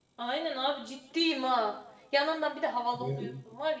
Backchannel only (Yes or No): Yes